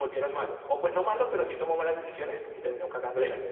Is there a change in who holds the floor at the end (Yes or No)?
Yes